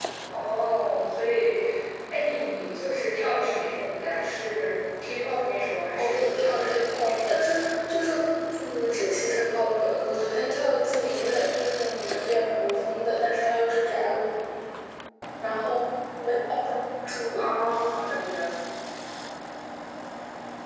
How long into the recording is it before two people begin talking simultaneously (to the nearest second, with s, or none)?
6 s